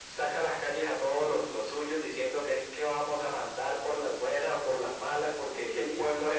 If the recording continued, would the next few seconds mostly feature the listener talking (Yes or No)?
No